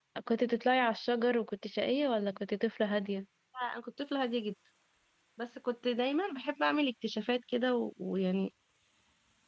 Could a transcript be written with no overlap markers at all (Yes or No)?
Yes